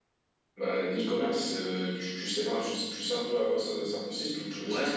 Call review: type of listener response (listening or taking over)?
taking over